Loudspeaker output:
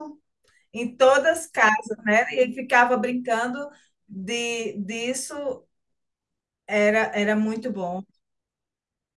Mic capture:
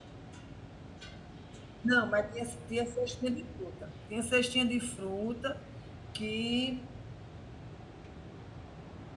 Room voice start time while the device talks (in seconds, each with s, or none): 1.8 s